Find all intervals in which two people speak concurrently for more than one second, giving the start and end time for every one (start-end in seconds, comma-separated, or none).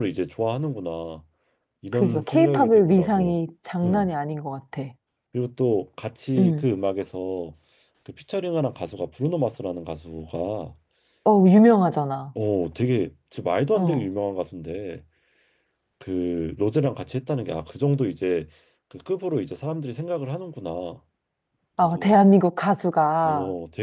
1.9-3.3